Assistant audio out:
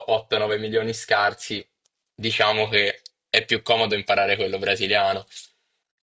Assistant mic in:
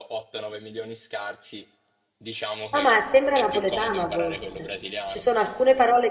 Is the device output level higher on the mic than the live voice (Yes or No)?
No